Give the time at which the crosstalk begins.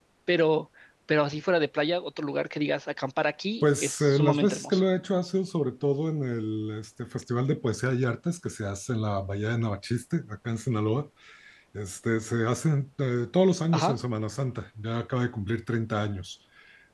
4 s

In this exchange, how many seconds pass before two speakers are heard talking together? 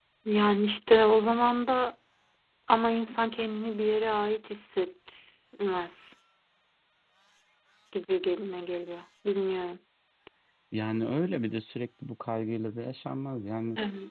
none

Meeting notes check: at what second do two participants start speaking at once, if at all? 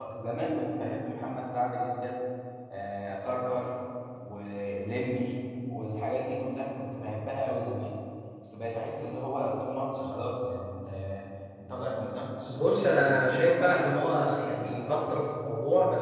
12 s

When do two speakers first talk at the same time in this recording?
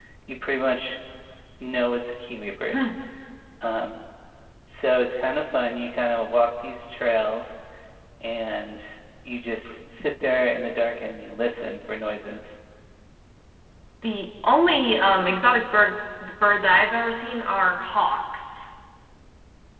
none

